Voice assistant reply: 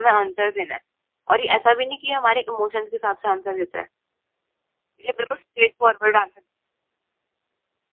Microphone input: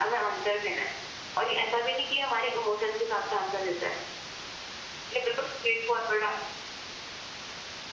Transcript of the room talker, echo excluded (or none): none